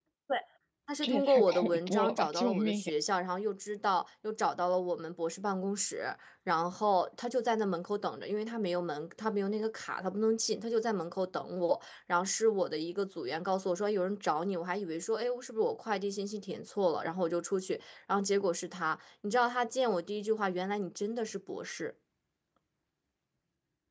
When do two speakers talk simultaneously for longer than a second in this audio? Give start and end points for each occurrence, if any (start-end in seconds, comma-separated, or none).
1.0-2.8